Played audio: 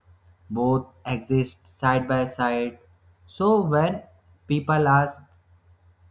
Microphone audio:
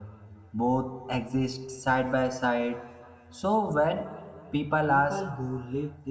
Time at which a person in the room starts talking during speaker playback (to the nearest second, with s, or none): 5 s